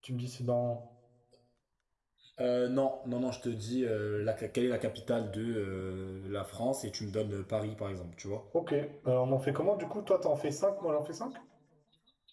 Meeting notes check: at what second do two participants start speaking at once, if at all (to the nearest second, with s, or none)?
none